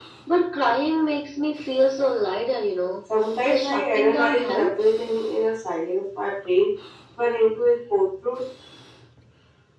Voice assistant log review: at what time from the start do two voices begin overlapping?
3.1 s

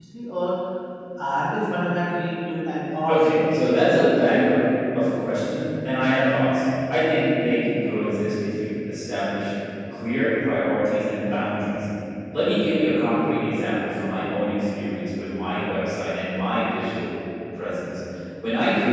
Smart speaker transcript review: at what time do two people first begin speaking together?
3.1 s

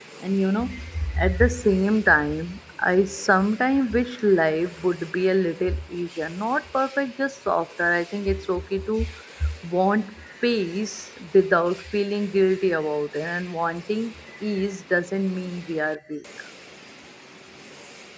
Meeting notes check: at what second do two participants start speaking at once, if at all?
none

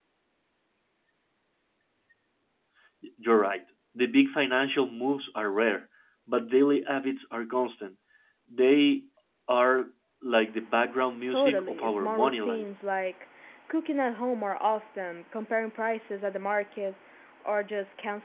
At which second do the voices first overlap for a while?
11.3 s

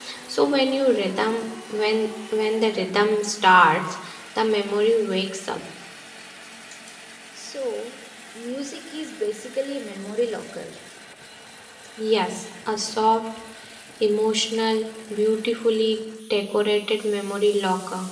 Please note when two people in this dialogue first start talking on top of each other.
none

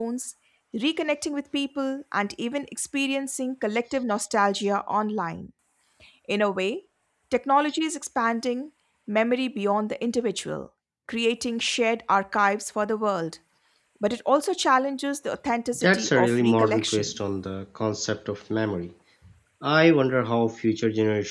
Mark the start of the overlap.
15.7 s

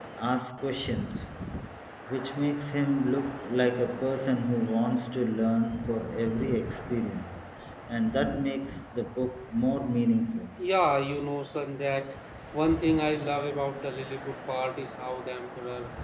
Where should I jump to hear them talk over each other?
none

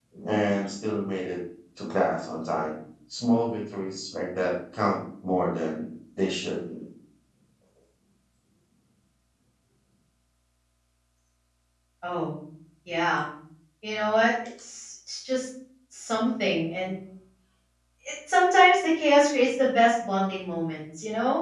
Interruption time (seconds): none

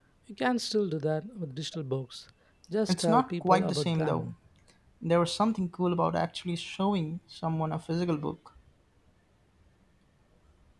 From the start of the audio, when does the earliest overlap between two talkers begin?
2.9 s

